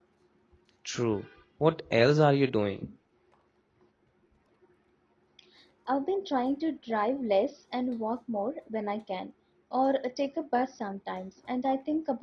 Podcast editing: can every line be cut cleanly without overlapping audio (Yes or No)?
Yes